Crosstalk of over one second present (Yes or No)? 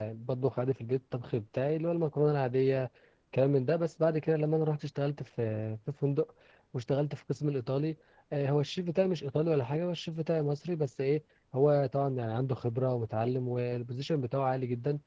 No